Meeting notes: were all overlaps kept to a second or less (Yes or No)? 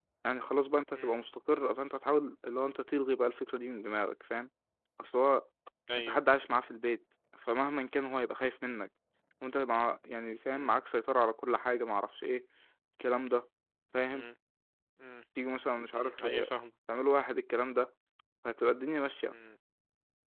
Yes